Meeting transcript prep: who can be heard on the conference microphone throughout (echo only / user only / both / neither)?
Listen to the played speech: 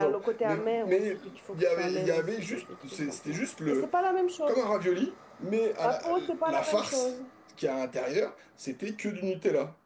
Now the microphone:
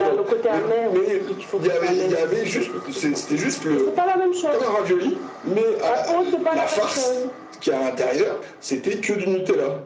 echo only